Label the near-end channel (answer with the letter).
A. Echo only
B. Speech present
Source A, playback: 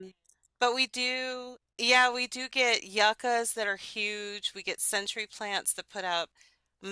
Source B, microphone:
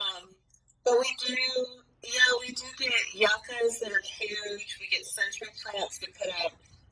A